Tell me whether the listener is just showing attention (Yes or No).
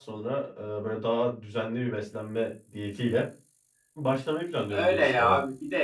No